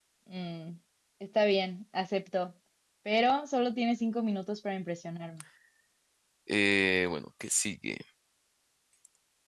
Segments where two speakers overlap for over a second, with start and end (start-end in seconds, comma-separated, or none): none